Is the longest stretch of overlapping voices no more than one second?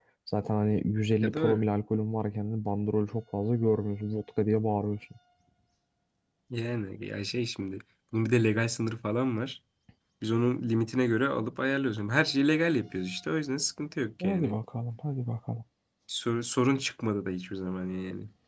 Yes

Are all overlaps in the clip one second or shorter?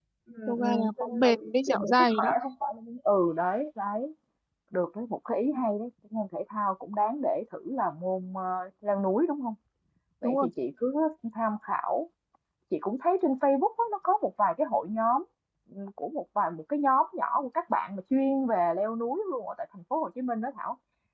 No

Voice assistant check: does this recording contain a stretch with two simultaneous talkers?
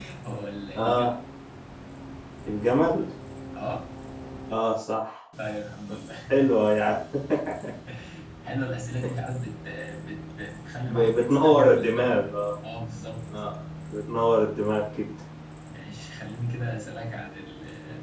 Yes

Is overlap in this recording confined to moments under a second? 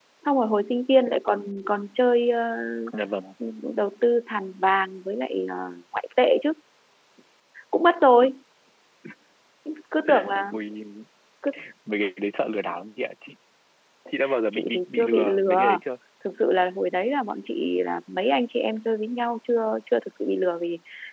No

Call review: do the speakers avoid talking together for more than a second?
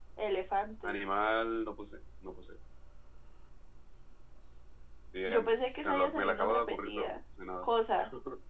No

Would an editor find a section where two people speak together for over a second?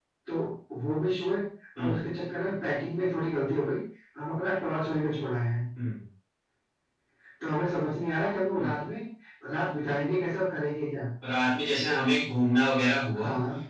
No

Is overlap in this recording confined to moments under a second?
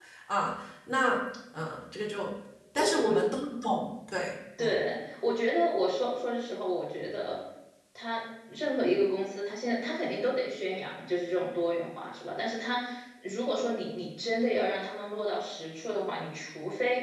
Yes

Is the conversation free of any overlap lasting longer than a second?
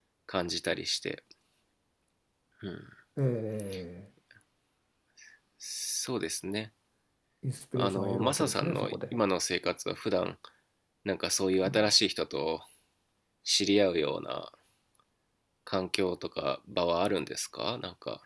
No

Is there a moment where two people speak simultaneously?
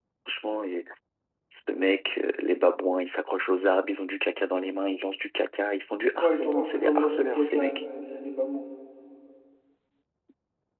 Yes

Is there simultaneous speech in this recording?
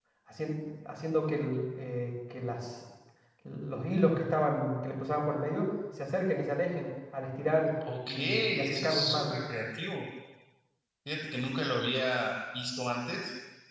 Yes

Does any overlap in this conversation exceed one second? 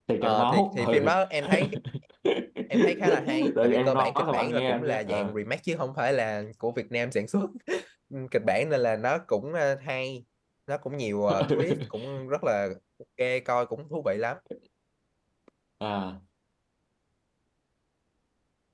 Yes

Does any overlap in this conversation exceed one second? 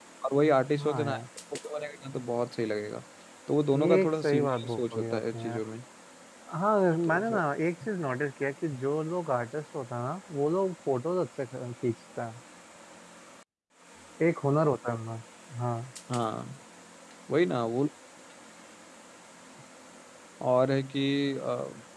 Yes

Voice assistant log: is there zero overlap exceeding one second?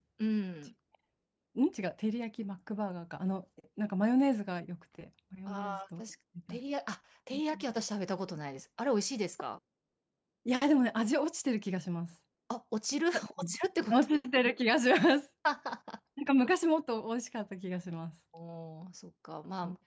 Yes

